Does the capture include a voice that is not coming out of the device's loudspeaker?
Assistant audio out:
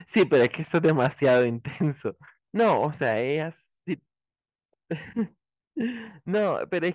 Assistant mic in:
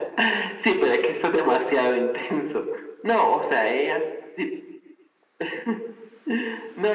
No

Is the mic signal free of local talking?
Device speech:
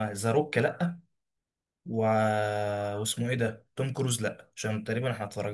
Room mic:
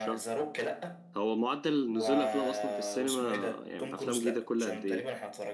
No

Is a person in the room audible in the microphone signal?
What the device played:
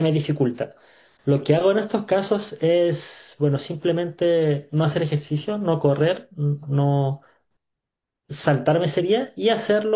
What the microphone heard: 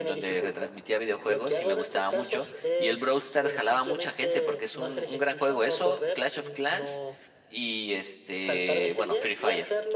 Yes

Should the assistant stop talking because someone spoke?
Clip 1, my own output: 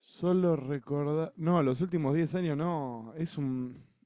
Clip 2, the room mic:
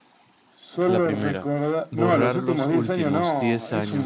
Yes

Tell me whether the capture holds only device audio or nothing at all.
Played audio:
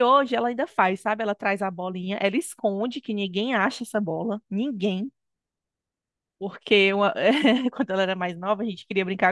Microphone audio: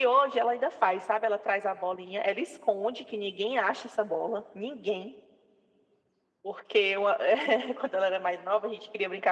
Yes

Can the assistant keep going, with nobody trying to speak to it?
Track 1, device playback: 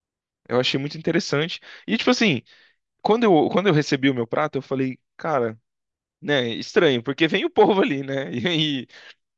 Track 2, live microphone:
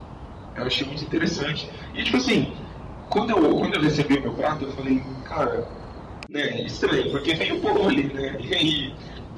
Yes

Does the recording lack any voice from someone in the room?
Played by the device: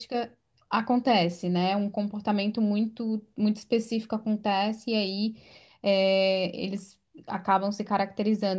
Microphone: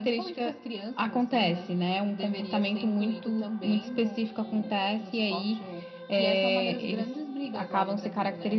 No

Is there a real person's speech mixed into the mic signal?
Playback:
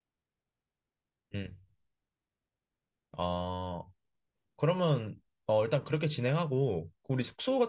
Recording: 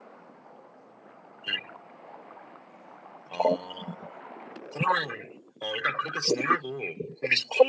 No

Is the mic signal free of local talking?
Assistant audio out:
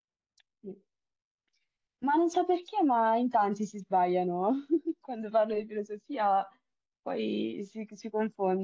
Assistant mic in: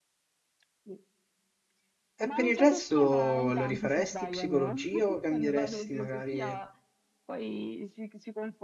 No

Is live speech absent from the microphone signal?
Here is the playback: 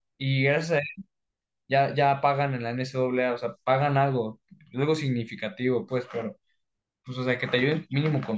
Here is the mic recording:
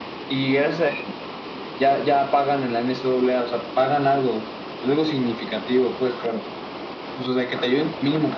Yes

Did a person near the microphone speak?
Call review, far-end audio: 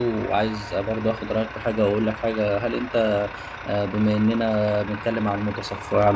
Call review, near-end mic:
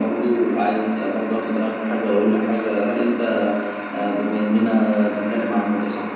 No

